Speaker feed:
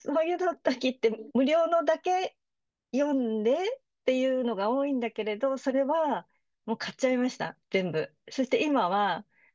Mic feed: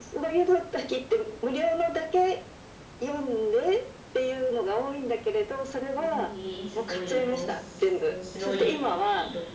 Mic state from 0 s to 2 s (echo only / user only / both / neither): echo only